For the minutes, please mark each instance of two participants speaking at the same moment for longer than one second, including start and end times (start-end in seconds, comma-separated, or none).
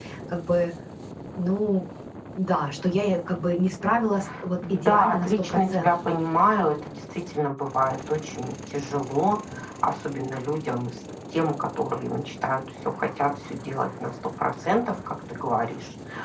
4.7-6.1